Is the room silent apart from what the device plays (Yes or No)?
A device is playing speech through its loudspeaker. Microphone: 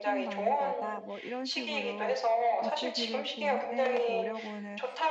No